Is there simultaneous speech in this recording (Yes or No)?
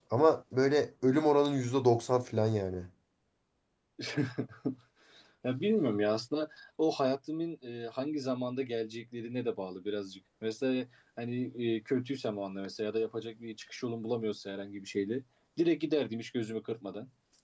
No